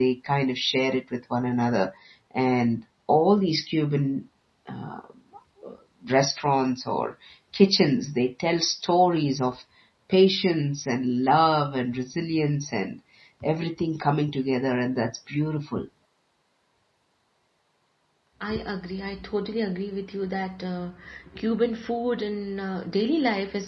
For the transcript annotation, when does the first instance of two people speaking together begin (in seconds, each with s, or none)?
none